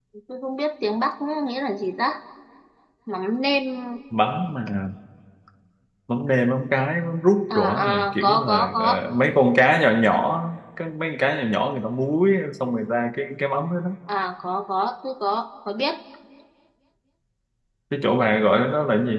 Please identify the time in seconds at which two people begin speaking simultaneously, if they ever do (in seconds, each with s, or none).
7.5 s